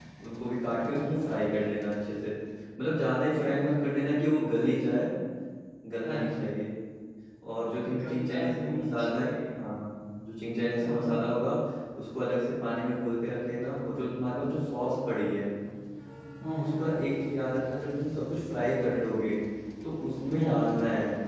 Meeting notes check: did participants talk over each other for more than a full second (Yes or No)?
Yes